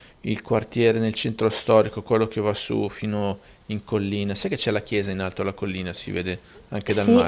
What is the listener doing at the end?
taking over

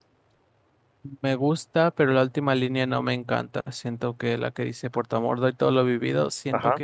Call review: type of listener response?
listening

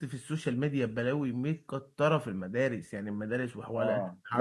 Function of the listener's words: taking over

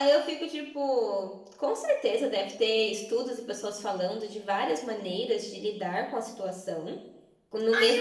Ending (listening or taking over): taking over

